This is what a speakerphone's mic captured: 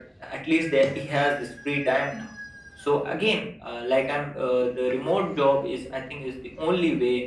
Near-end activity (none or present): none